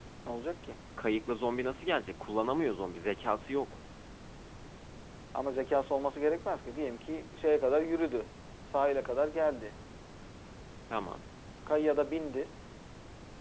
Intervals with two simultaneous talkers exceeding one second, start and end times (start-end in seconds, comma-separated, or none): none